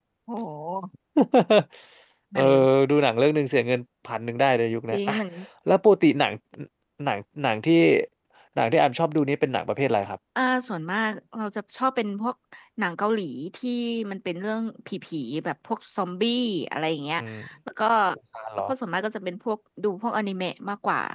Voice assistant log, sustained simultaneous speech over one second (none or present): none